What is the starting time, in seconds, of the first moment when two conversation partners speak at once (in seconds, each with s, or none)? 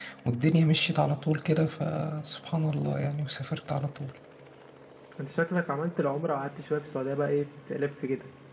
none